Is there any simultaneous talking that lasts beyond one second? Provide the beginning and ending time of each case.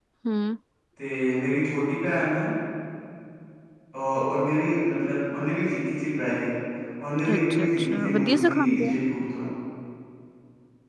7.3-8.9

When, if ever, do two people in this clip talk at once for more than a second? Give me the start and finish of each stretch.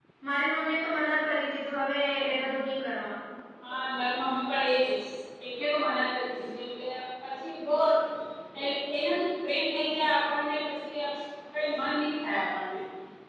none

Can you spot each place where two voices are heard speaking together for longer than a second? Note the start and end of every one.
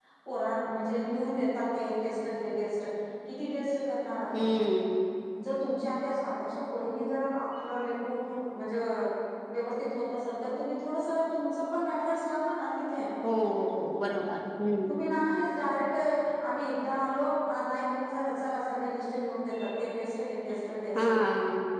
none

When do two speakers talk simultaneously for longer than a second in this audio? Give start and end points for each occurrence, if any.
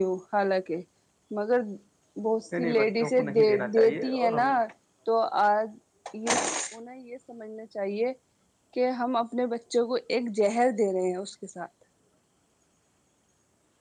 2.6-4.5

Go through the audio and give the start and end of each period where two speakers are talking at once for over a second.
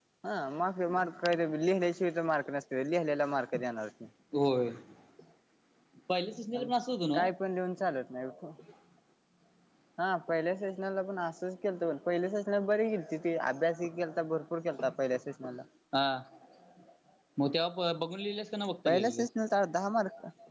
none

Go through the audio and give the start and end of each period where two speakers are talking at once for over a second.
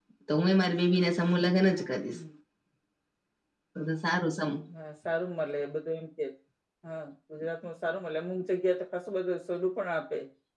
none

